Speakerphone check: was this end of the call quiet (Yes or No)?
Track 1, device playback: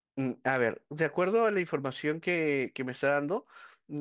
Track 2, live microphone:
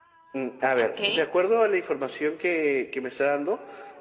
No